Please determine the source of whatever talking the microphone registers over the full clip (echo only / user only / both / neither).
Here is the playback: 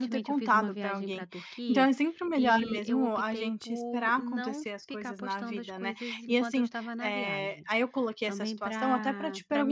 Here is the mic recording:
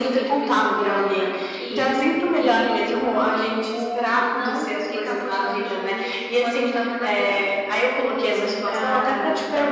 echo only